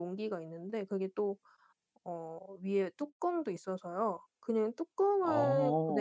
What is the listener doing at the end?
listening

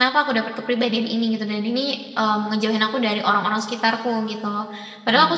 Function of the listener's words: listening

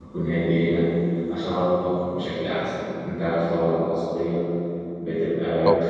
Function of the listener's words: listening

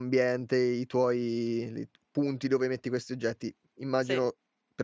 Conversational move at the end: listening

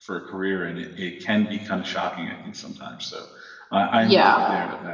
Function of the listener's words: listening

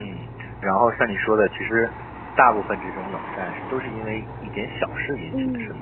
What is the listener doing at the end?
taking over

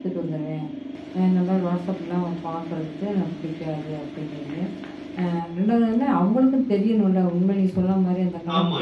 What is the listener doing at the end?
taking over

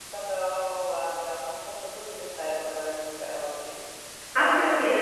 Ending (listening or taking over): taking over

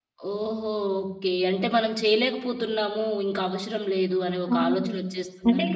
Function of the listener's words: taking over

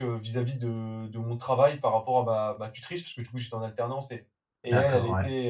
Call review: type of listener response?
listening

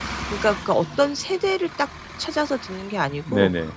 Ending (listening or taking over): listening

